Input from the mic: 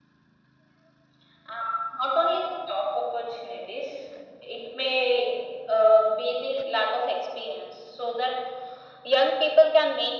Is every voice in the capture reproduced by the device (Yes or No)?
Yes